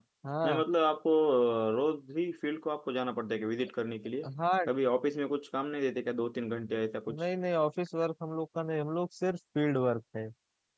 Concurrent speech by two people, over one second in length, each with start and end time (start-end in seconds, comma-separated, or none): none